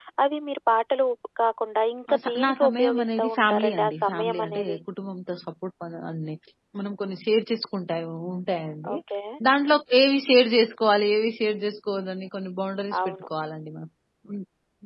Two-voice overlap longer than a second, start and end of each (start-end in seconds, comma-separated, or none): 2.1-4.8